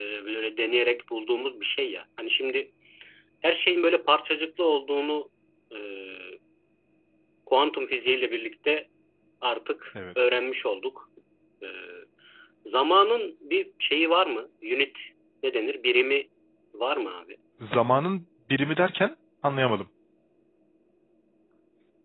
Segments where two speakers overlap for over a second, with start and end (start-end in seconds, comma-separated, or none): none